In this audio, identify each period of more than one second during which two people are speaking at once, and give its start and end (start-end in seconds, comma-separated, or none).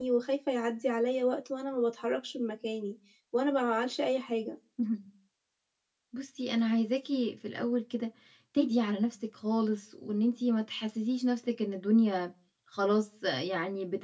none